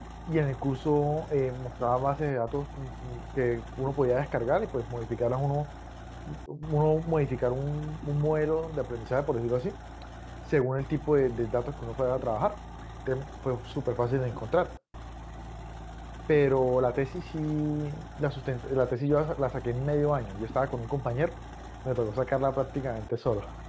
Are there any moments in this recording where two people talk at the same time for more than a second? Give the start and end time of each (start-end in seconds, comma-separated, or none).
none